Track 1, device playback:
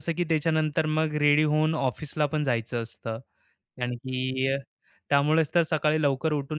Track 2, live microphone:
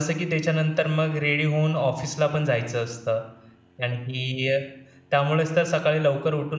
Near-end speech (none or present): none